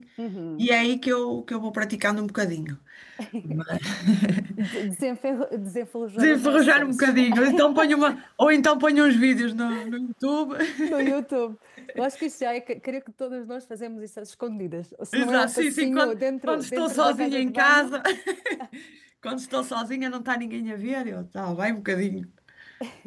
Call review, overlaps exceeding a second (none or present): present